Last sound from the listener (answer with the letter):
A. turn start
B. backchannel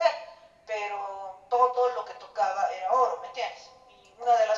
B